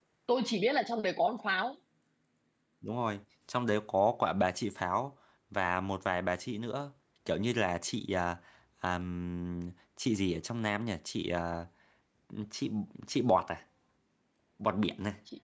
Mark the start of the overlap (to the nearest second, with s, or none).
none